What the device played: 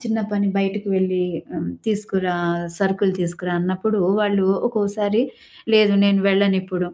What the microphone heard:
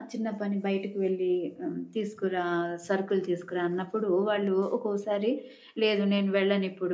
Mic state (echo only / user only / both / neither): echo only